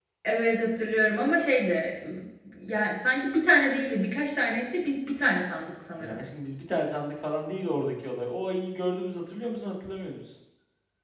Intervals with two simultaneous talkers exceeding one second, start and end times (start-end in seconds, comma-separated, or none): none